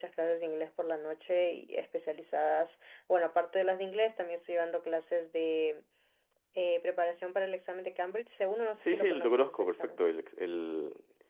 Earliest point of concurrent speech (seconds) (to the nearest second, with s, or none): 9 s